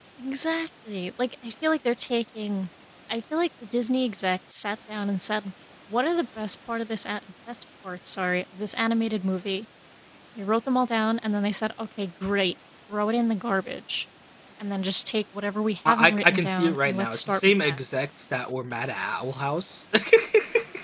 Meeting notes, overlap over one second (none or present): present